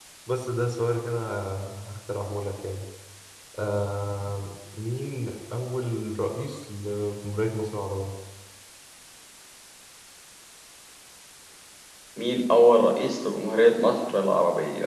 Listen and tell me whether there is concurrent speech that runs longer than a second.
No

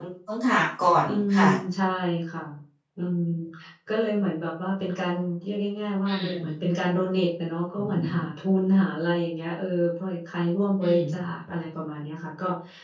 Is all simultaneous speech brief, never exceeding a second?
Yes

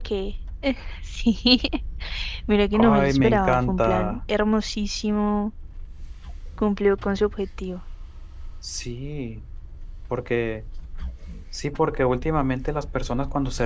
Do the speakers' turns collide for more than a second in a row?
Yes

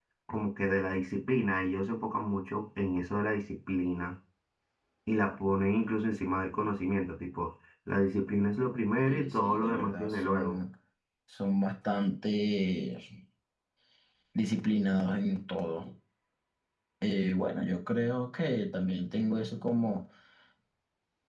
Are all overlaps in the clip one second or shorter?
No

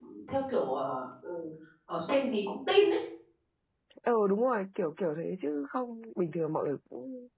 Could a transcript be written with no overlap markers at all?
Yes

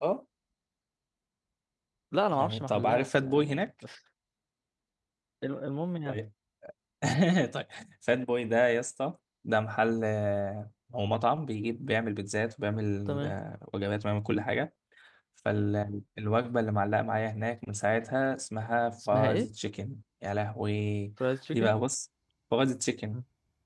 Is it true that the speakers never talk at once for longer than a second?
No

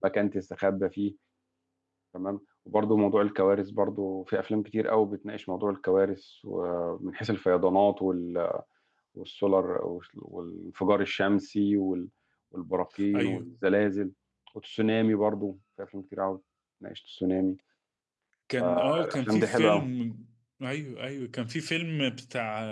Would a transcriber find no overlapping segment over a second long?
No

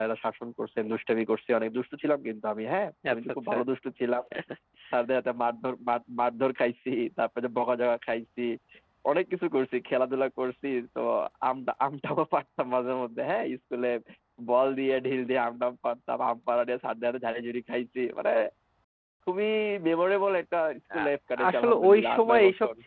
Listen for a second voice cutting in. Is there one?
Yes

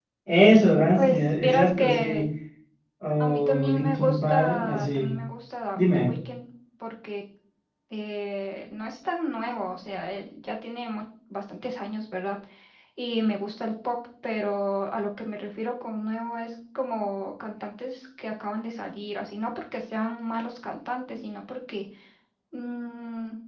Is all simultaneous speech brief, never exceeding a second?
No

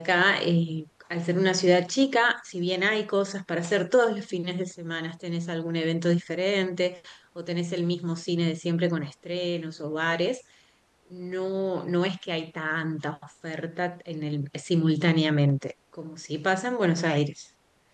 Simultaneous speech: No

